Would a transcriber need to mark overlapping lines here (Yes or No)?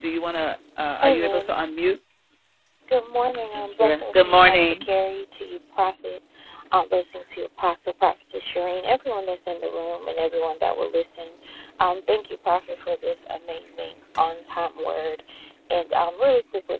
Yes